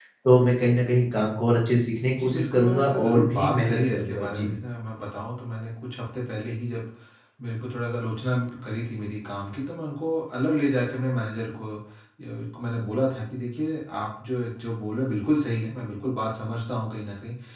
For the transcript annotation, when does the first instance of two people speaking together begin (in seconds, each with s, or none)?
2.2 s